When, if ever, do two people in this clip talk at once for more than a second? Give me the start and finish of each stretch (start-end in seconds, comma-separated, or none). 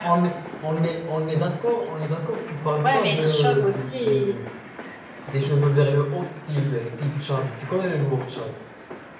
2.8-4.3